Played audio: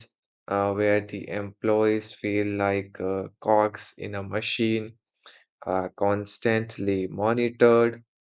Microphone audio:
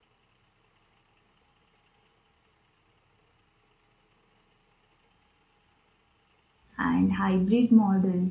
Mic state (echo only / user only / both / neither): user only